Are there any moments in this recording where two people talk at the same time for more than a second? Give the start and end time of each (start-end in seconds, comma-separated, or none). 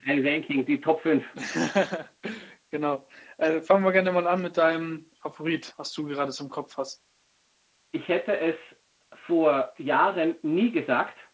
none